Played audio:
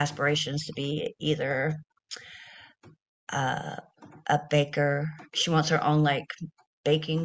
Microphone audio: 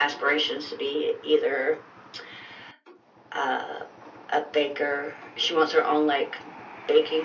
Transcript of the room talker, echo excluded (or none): none